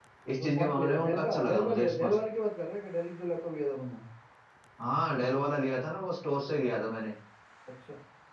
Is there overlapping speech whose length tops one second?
Yes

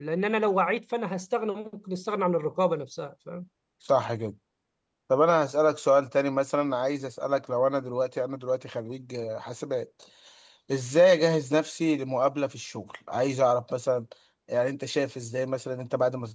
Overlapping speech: No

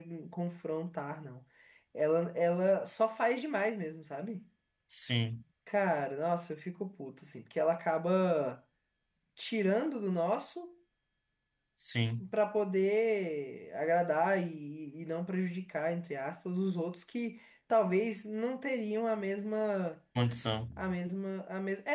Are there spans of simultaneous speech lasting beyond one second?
No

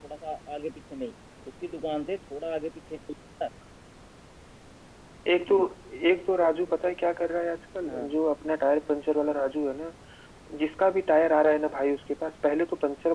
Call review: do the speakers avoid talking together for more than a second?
Yes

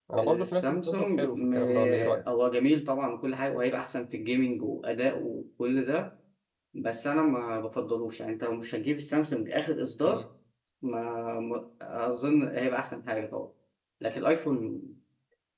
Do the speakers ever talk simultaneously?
Yes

